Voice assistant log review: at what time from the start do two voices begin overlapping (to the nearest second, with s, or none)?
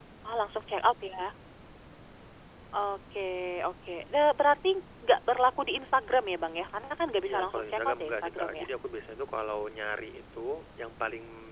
7 s